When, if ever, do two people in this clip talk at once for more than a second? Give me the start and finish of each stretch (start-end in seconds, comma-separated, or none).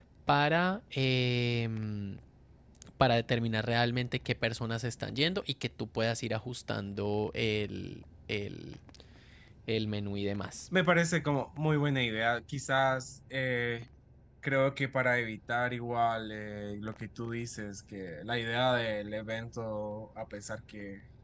none